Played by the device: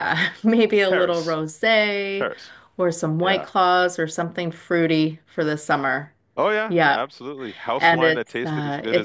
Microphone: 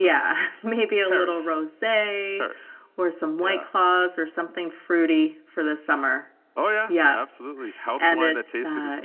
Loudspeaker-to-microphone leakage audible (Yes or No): Yes